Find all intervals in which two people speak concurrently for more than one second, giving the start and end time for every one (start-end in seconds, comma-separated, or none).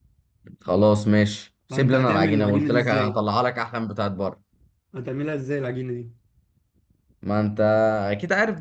1.7-3.2